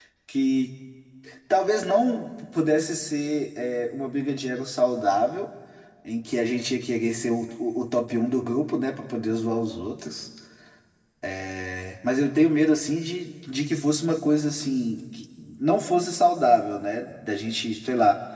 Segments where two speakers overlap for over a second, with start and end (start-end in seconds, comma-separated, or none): none